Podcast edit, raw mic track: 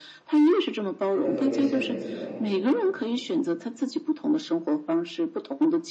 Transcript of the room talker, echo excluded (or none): 真的会威胁我们自由。